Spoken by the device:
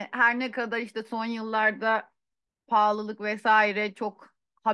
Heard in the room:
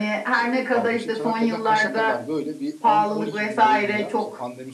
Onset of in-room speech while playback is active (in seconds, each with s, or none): 0.4 s